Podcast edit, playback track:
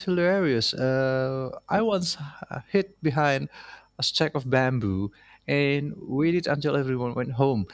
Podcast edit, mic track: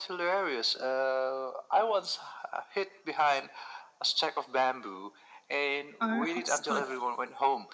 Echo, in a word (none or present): present